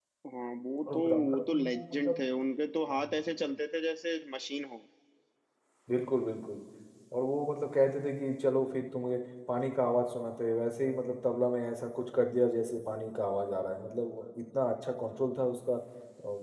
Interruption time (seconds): 0.9 s

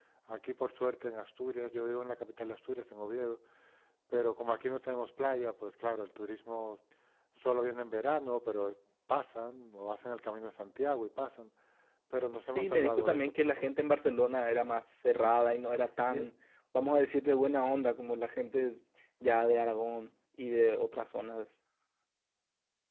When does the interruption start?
12.5 s

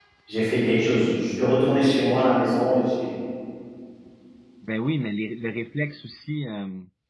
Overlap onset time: none

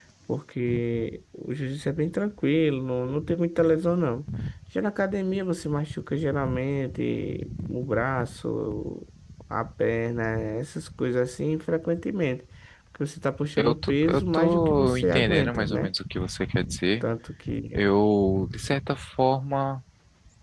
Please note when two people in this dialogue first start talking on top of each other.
13.6 s

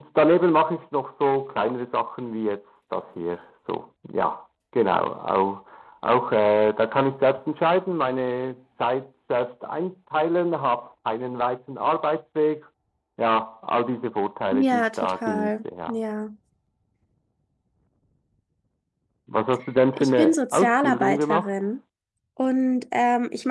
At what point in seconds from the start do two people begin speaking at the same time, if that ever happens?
14.5 s

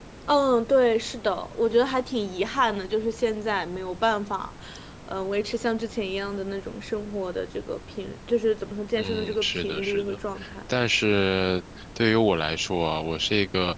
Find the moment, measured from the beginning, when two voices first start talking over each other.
9.0 s

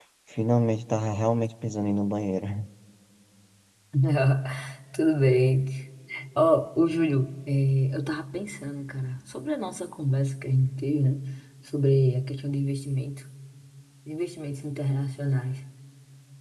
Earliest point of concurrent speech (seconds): none

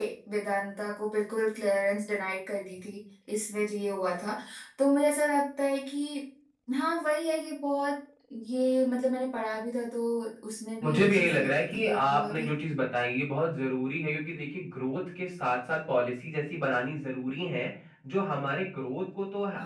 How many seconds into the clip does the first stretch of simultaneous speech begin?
10.8 s

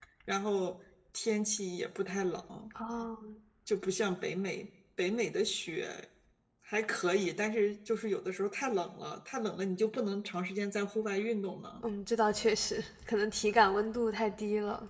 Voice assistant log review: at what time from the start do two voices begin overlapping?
none

